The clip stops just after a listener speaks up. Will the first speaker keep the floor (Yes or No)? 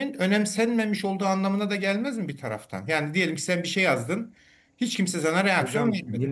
No